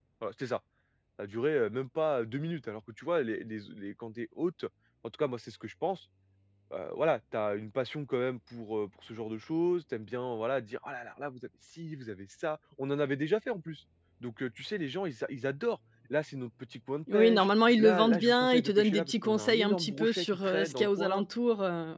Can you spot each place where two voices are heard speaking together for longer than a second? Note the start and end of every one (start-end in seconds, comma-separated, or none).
17.1-21.2